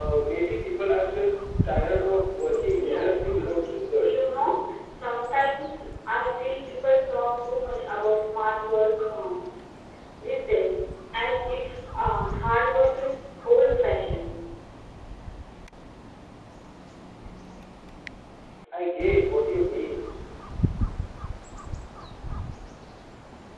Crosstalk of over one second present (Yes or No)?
Yes